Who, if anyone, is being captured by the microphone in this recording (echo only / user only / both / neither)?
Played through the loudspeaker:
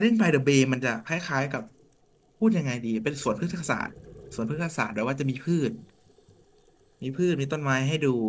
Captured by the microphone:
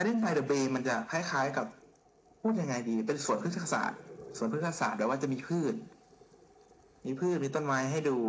echo only